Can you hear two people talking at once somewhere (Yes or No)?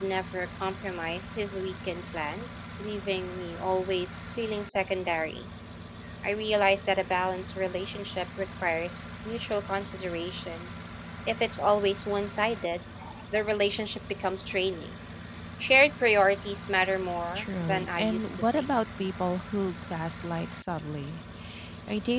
Yes